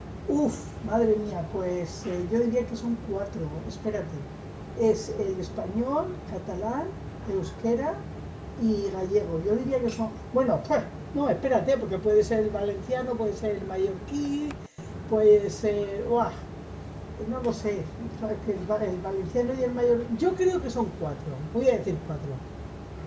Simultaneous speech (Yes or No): No